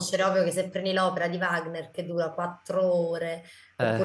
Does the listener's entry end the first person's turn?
No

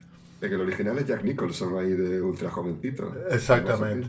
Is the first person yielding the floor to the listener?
Yes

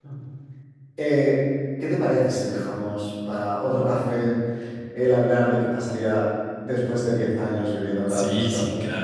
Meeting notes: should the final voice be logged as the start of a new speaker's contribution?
Yes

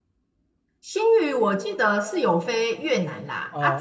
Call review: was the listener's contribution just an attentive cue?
Yes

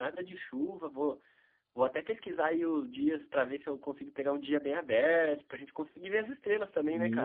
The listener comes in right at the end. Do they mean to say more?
Yes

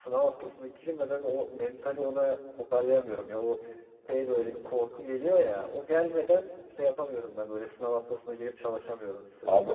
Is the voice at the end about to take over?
Yes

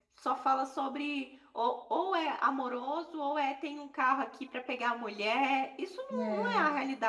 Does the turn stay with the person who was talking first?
Yes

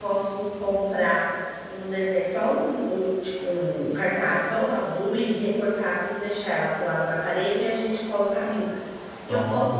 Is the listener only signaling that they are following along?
Yes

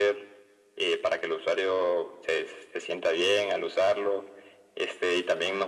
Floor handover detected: No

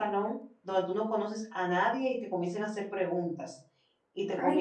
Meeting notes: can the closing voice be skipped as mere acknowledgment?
No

